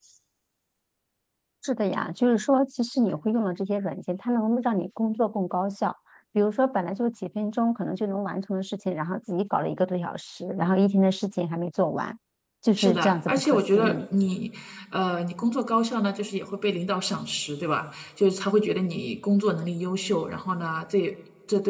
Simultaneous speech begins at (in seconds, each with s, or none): 12.8 s